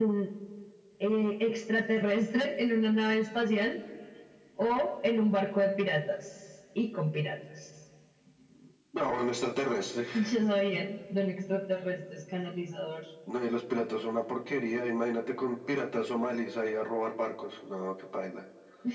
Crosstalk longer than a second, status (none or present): none